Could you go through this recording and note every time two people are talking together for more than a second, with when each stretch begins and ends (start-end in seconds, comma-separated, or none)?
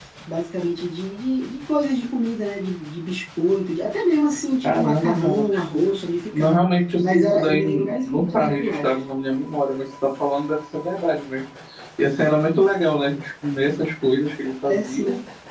4.6-5.8, 7.0-9.0